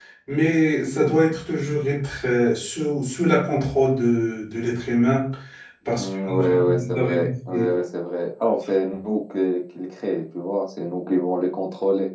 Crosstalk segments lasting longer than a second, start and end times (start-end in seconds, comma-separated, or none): 5.9-7.7